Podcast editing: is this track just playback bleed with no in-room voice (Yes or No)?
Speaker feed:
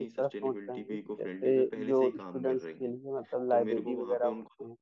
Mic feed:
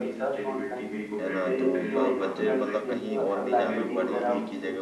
No